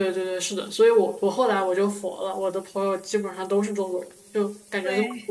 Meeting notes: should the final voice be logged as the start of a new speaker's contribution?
No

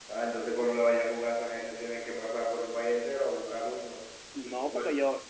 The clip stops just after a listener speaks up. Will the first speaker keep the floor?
No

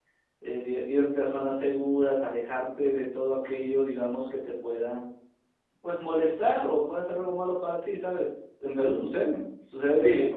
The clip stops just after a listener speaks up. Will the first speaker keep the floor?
Yes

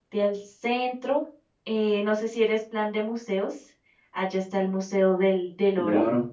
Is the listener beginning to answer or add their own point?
Yes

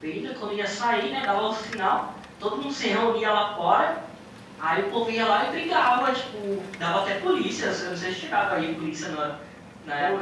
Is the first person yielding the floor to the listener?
Yes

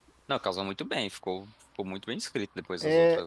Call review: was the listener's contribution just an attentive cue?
No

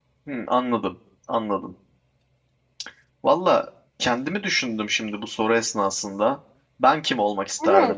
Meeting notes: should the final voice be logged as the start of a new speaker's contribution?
Yes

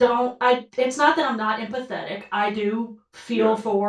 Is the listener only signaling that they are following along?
Yes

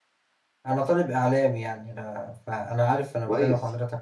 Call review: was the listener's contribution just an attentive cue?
No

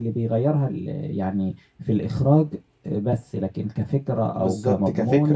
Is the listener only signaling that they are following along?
No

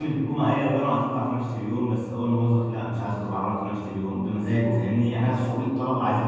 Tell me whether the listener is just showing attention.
Yes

